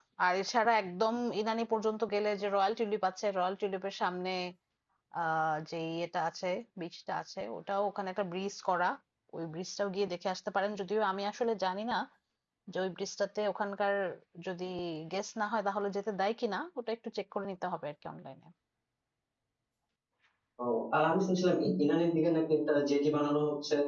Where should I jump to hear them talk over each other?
none

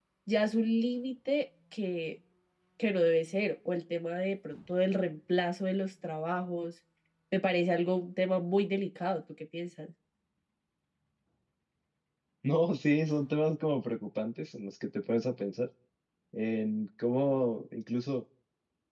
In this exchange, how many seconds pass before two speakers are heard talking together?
none

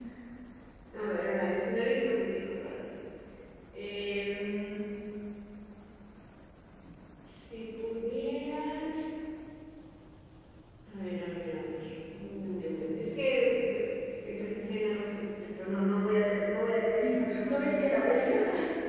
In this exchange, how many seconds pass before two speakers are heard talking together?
17 s

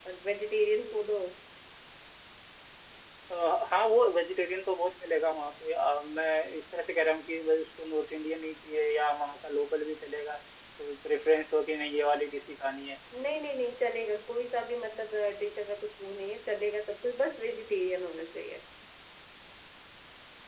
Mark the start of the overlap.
none

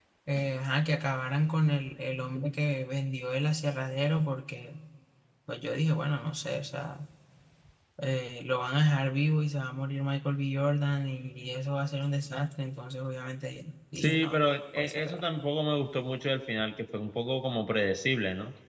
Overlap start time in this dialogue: 14 s

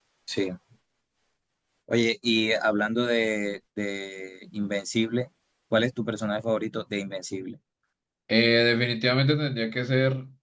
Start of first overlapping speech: none

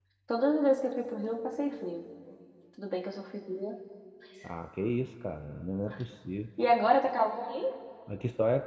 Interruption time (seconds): none

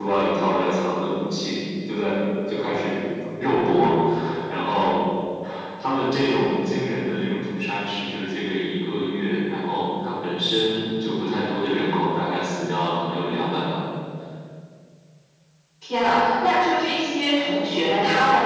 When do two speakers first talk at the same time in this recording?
none

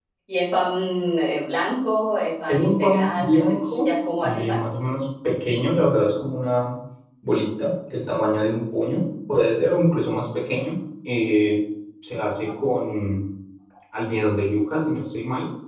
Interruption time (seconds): 2 s

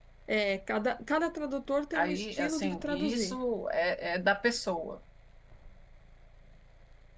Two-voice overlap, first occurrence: 2 s

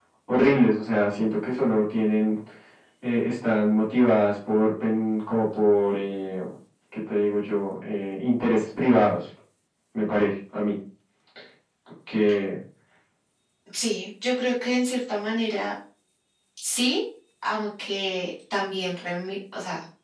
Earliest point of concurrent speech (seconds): none

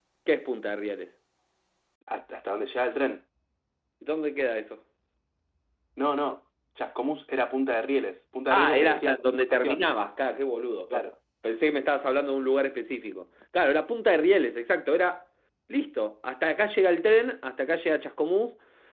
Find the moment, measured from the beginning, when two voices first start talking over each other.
9 s

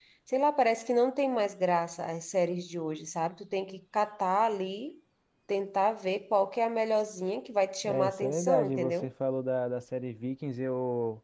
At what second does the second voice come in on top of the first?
8 s

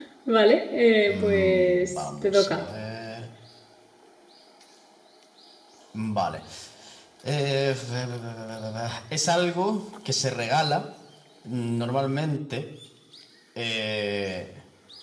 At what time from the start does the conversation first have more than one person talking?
1 s

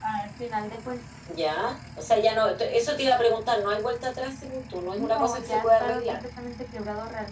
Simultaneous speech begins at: 5 s

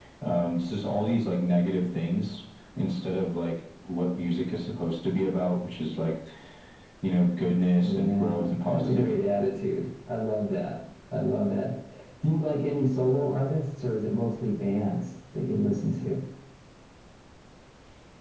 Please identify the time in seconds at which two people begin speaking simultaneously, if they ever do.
8 s

